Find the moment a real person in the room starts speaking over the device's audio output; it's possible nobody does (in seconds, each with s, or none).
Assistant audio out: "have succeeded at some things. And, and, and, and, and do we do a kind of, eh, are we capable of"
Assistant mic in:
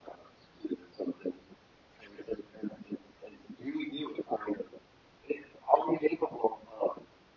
none